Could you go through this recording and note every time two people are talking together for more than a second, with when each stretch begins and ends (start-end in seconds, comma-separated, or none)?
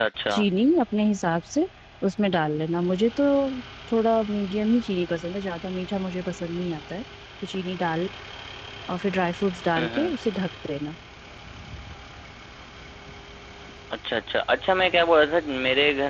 none